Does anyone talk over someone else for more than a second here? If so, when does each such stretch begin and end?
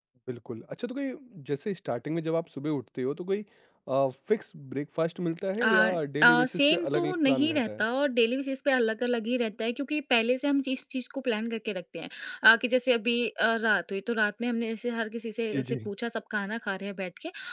6.2-7.8

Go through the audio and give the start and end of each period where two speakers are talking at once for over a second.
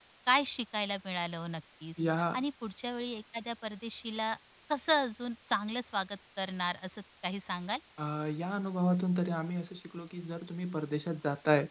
none

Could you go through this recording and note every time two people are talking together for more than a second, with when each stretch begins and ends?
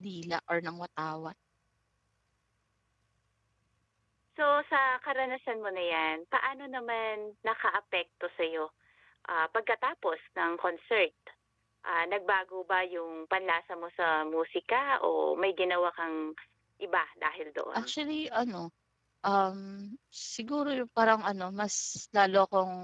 none

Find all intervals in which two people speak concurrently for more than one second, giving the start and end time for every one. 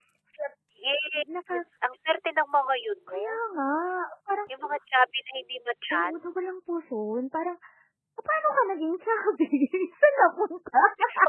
none

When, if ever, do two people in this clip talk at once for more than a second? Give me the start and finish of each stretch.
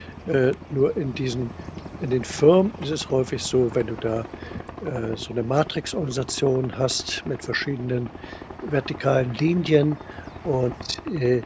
none

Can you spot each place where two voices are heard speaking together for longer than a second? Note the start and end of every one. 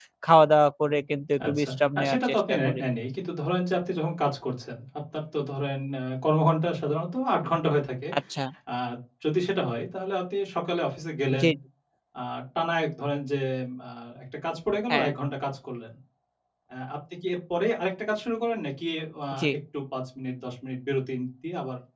1.5-2.8

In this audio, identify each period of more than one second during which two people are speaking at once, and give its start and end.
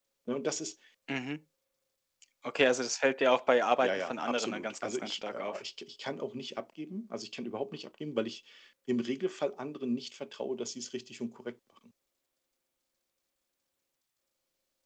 3.8-5.6

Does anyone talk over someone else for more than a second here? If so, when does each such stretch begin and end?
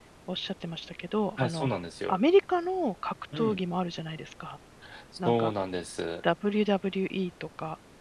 none

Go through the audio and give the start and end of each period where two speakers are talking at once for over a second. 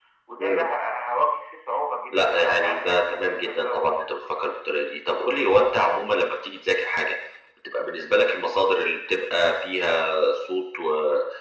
2.1-3.8

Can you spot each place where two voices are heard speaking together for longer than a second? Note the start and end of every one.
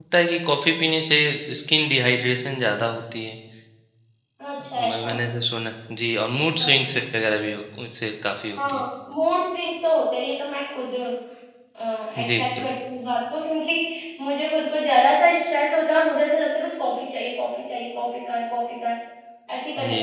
none

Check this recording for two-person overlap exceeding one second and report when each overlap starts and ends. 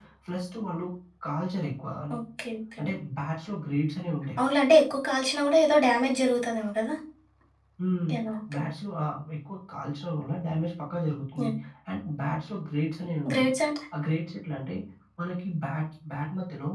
none

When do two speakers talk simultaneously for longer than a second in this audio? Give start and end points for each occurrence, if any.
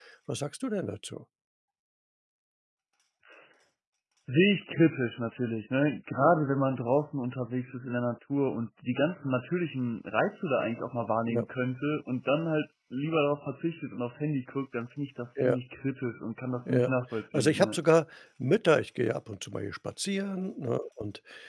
none

